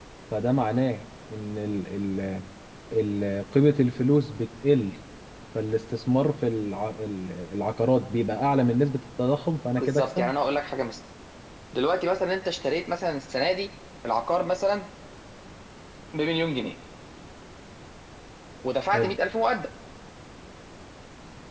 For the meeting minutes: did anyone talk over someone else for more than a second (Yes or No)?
No